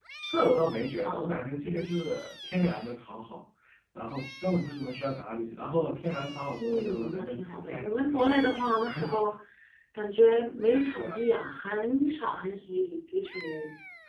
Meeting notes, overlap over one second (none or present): present